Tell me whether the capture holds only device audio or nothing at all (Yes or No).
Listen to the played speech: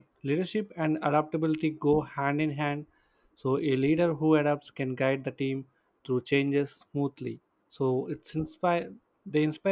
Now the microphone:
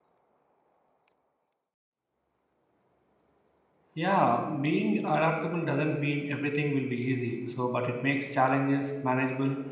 No